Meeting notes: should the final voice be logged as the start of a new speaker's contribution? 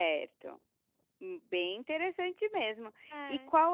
No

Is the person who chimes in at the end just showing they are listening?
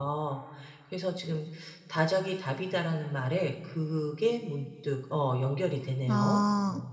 No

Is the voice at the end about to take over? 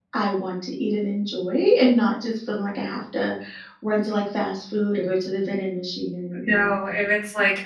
Yes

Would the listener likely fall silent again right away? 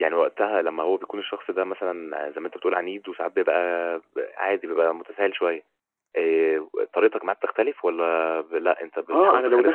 No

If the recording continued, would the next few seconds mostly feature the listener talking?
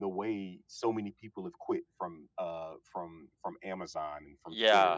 Yes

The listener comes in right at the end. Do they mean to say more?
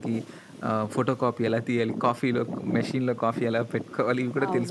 Yes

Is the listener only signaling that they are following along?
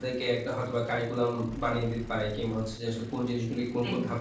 Yes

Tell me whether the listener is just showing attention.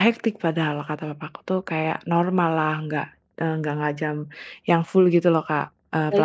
No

